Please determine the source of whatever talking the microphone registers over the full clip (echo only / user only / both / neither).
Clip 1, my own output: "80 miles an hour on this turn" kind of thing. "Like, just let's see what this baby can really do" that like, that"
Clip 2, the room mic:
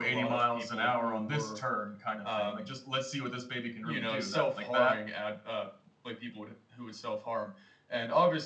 both